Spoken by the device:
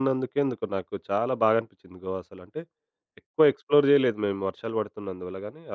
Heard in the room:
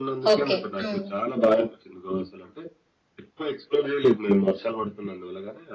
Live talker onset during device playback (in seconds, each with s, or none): 0.3 s